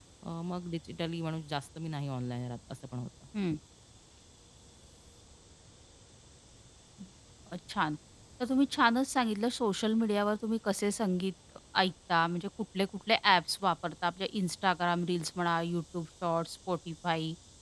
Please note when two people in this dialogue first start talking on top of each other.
none

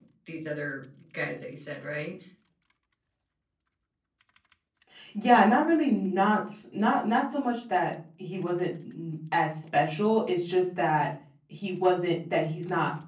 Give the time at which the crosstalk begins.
none

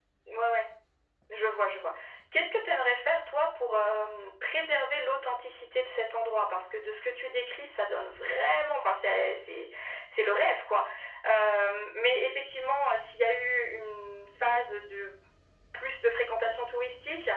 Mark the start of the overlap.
none

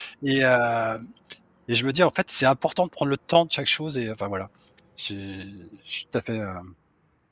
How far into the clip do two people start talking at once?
none

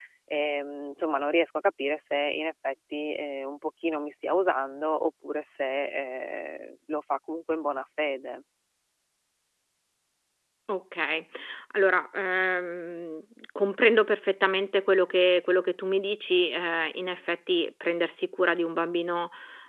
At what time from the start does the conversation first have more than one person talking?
none

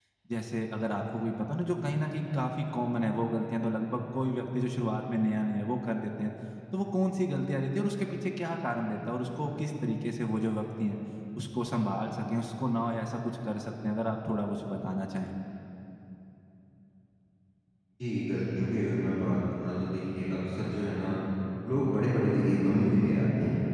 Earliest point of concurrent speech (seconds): none

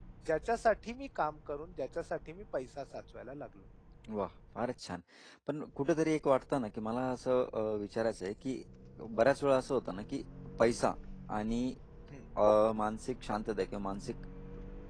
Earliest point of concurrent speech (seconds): none

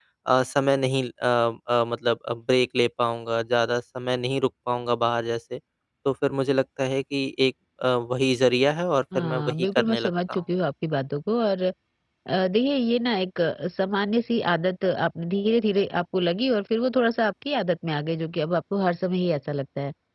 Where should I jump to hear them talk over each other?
9.1 s

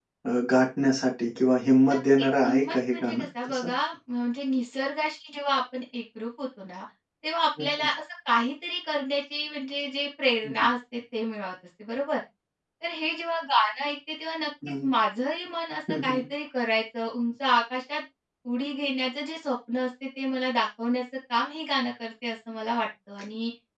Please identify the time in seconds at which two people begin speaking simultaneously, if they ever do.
1.9 s

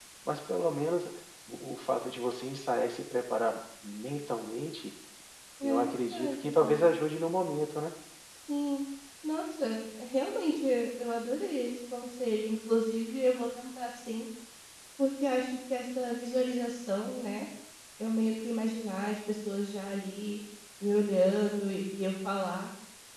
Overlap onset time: 5.6 s

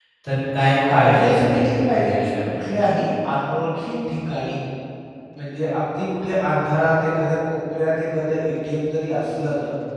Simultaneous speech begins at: 0.9 s

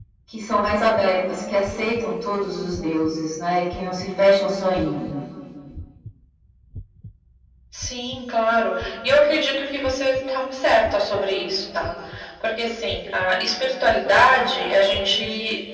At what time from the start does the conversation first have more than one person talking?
none

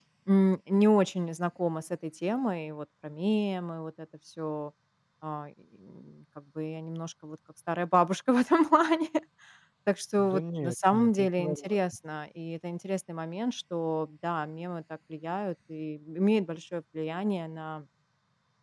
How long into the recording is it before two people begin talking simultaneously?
10.2 s

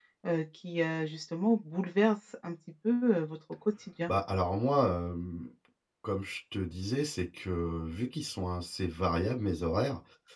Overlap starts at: none

